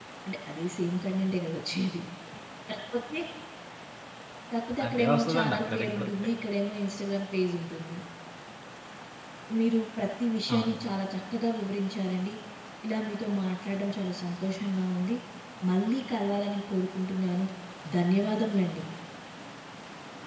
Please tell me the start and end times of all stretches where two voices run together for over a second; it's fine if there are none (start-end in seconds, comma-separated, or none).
4.9-6.1